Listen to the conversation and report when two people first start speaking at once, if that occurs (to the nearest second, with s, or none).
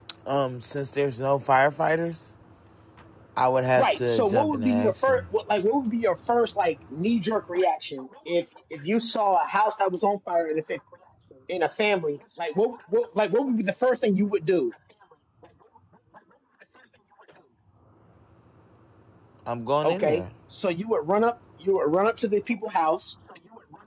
4 s